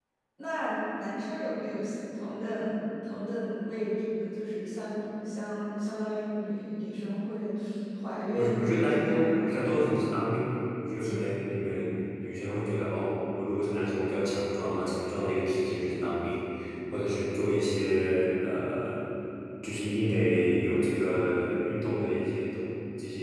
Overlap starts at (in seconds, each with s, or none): 8.3 s